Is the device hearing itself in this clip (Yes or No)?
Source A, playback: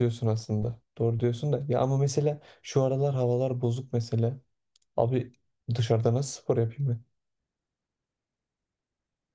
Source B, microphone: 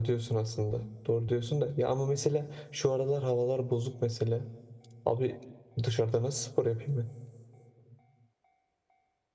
Yes